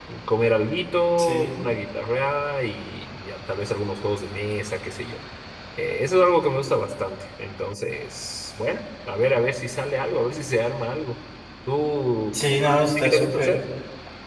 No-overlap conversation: No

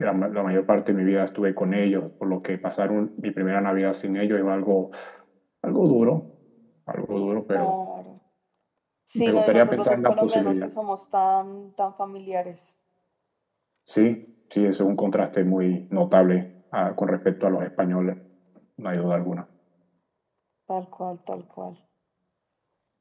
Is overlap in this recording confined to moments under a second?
No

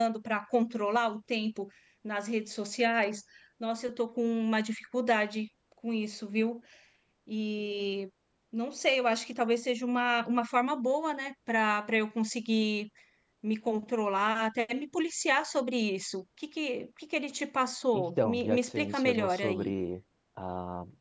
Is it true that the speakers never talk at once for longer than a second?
No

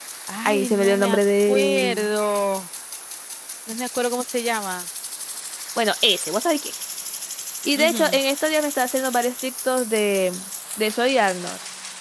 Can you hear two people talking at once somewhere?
Yes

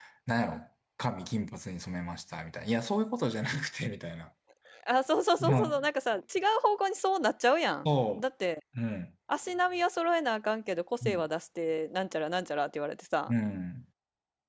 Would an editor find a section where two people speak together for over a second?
No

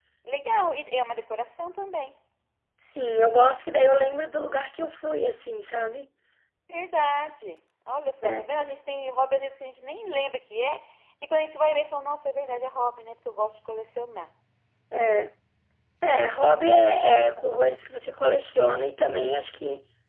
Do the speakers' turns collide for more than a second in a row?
No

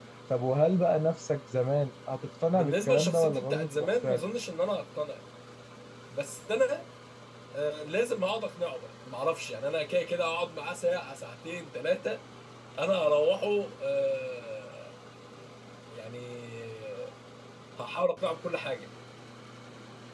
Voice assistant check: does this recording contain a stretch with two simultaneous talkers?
Yes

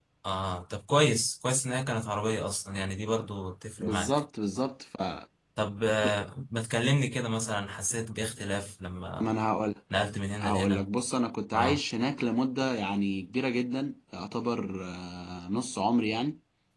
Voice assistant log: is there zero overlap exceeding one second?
Yes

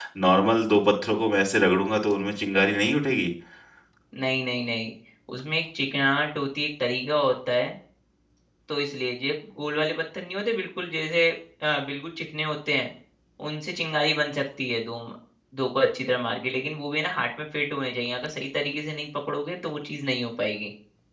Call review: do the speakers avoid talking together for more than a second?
Yes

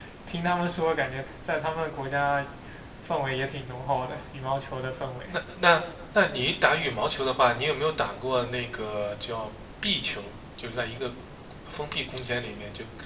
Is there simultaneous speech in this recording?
No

